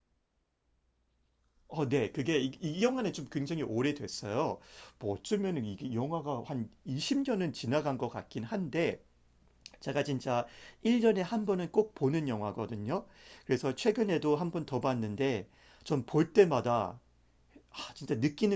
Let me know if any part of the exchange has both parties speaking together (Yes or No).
No